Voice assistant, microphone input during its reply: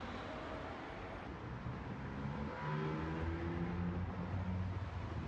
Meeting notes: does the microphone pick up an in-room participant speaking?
No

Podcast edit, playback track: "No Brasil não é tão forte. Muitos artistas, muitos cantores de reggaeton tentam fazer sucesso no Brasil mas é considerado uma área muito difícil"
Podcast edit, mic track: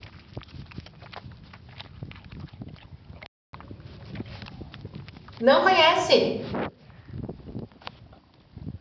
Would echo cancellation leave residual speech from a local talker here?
Yes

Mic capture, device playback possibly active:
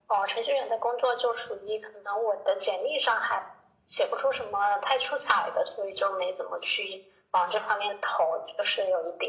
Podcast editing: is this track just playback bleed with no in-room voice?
Yes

